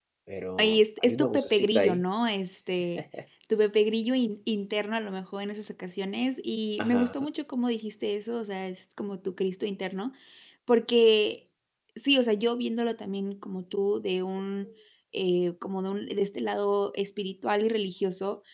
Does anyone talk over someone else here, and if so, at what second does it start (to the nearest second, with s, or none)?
1 s